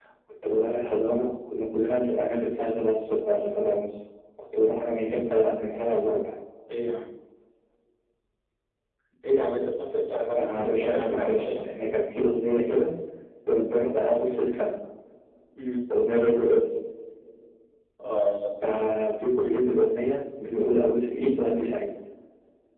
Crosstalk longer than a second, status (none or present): present